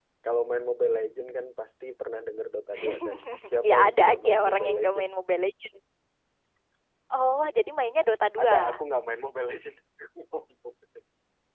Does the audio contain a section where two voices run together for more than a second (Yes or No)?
Yes